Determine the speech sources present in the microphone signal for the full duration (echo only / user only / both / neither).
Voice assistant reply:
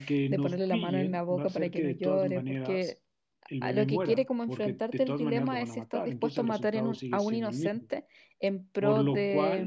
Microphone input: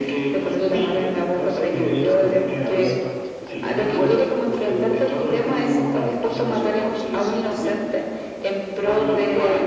both